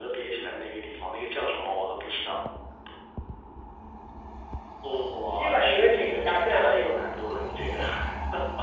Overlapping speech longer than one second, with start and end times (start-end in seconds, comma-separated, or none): 5.3-6.8